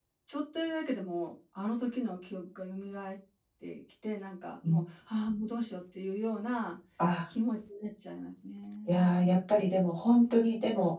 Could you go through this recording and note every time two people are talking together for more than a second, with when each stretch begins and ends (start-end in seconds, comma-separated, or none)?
none